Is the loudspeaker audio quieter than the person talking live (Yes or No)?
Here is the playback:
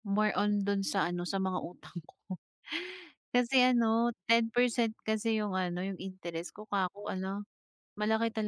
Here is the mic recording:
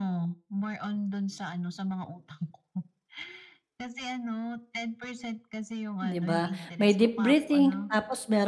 Yes